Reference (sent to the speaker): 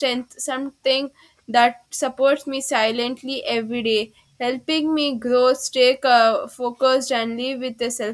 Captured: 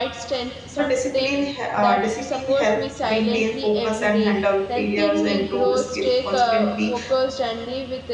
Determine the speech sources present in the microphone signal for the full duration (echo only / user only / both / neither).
both